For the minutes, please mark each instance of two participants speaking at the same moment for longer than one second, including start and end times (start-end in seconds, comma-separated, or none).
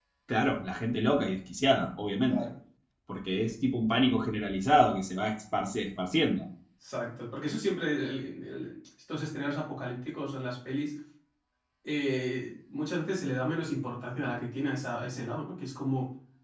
none